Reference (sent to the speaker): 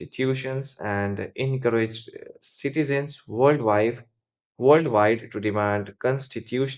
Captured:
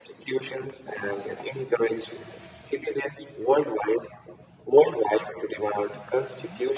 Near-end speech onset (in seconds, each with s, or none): none